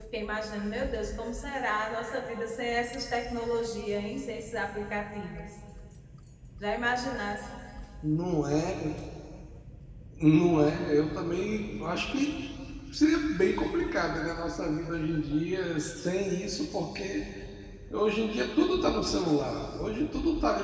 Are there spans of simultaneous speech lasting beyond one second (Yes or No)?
No